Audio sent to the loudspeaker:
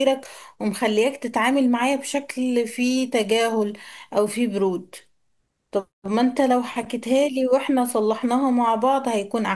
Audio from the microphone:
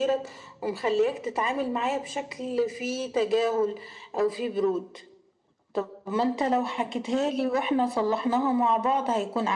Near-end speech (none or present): none